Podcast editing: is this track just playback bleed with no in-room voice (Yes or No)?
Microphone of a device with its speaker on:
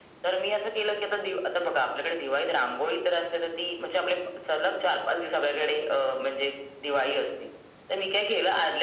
Yes